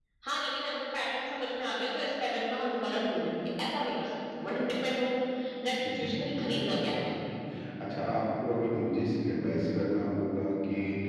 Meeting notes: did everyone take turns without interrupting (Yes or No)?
No